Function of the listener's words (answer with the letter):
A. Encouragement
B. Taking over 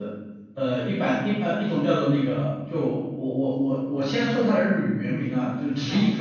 A